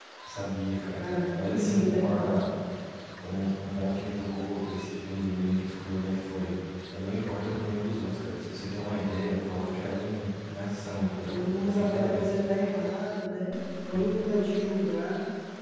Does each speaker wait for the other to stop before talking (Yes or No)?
No